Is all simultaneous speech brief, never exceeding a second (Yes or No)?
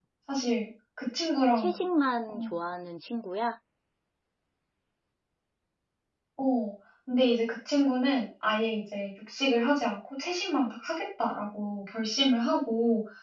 Yes